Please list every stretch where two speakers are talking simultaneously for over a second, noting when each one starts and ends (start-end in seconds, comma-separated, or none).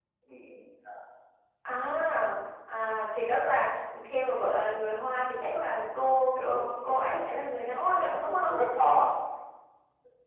6.3-8.5